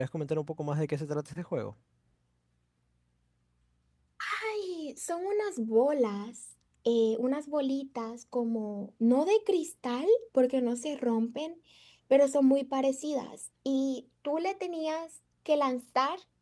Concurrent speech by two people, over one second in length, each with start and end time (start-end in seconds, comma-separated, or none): none